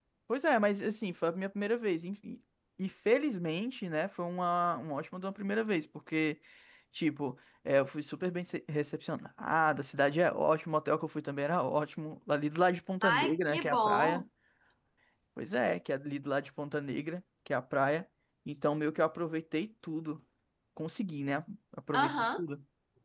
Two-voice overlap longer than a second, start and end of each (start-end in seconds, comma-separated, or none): 13.0-14.2